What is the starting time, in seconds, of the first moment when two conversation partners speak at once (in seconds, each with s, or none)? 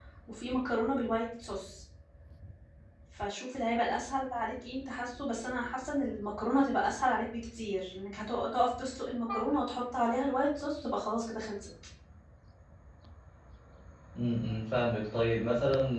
none